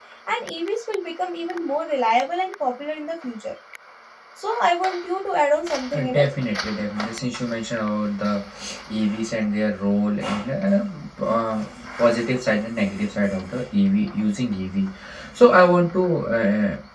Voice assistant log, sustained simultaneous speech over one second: none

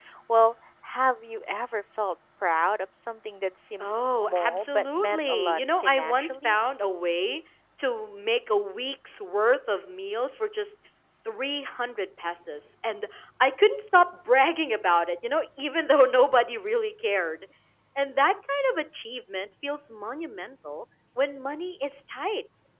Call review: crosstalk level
present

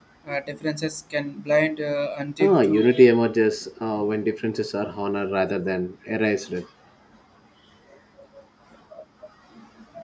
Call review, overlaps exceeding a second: none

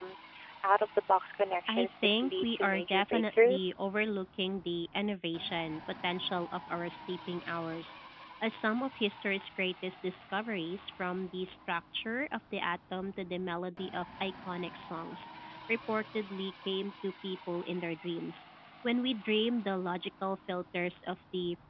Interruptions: present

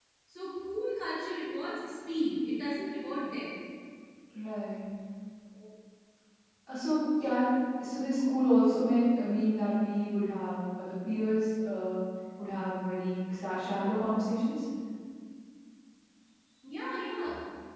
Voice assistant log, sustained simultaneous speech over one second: none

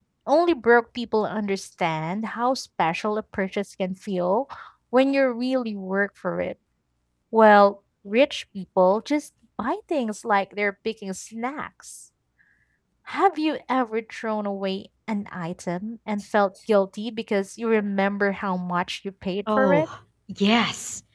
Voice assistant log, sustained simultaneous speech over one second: none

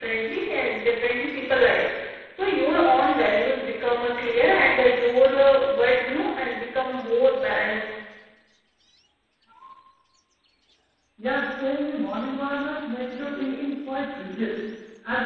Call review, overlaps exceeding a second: none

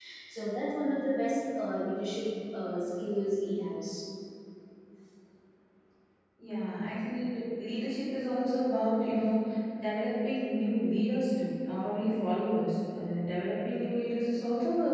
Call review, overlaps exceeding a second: none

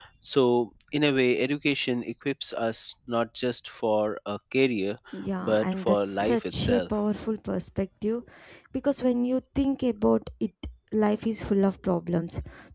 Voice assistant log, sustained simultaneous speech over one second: present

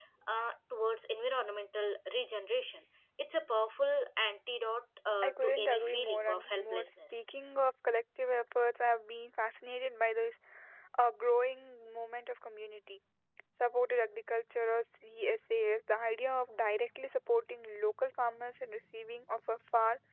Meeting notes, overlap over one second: present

